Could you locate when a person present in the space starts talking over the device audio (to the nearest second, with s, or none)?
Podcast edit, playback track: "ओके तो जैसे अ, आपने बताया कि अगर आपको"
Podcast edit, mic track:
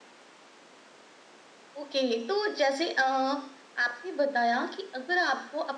none